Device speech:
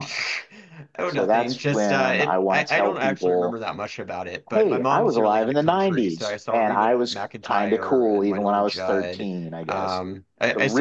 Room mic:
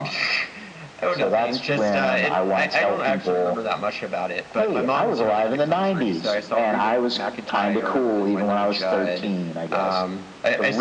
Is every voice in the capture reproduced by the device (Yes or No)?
Yes